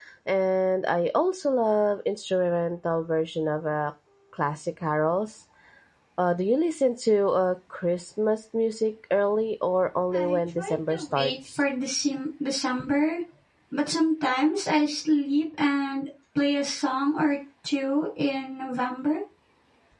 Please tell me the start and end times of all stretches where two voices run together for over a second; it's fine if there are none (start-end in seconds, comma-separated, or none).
10.1-11.6